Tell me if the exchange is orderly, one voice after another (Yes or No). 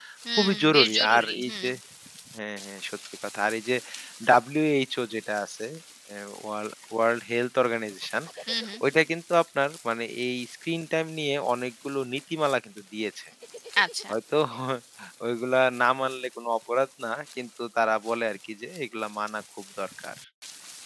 No